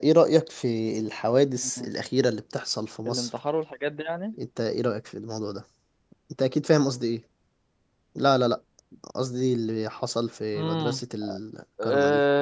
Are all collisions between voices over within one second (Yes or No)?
Yes